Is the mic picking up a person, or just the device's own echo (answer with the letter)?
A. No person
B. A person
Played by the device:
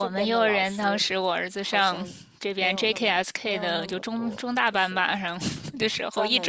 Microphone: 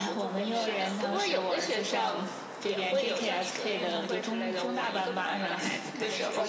B